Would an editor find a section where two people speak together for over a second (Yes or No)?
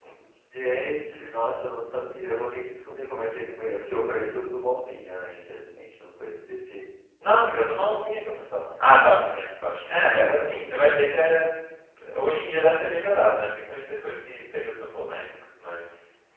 No